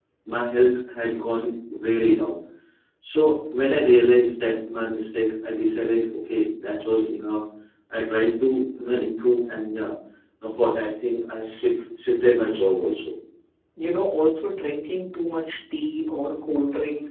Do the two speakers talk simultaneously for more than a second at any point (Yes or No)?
No